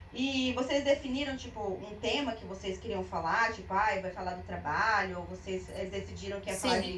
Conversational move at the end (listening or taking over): taking over